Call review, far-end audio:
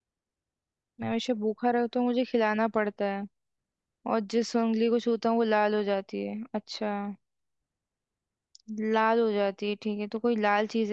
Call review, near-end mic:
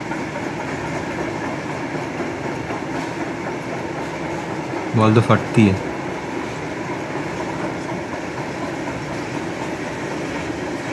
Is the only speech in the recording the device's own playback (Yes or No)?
No